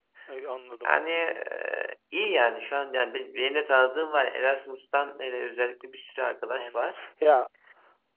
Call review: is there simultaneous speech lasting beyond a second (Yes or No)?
No